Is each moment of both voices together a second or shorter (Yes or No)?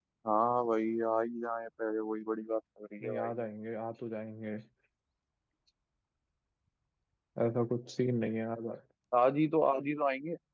Yes